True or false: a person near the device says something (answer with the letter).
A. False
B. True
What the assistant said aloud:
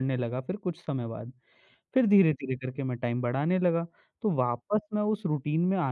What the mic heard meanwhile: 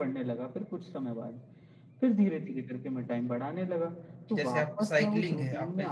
B